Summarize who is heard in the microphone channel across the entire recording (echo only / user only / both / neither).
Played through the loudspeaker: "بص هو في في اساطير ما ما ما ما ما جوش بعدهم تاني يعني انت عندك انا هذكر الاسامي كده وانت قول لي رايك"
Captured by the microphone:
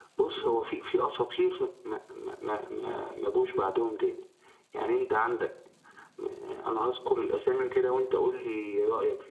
echo only